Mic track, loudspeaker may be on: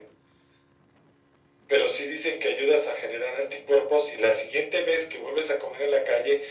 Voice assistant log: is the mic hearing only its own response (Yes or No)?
Yes